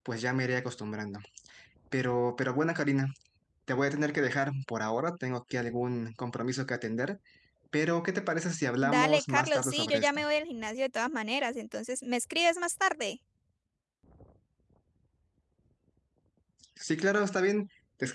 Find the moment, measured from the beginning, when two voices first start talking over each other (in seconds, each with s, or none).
8.8 s